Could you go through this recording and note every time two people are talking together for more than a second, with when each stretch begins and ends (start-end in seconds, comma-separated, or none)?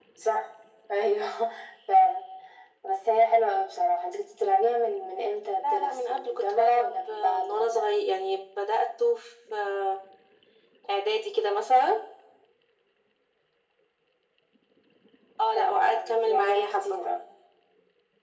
5.7-7.9, 15.5-17.1